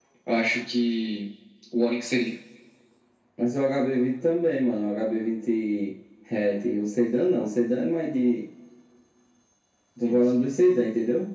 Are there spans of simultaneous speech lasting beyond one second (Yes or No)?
No